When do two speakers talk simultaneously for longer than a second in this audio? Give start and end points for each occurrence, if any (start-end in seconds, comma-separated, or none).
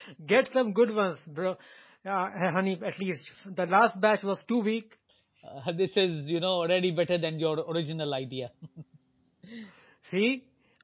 none